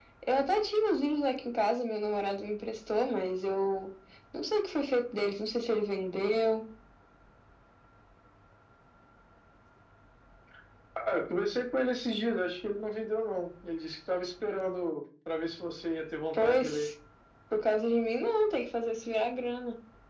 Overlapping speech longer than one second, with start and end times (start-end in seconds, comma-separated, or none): none